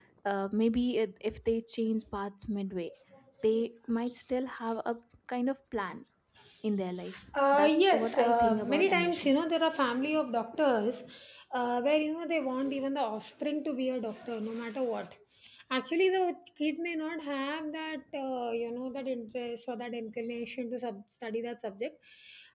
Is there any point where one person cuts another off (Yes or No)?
Yes